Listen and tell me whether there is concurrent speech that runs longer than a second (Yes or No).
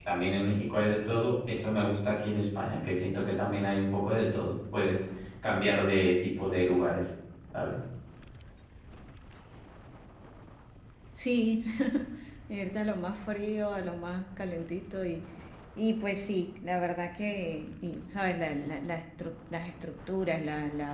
No